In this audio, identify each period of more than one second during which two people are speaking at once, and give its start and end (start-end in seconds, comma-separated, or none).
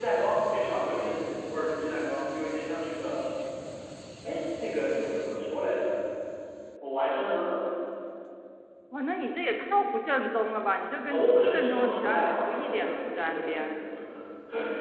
11.1-13.7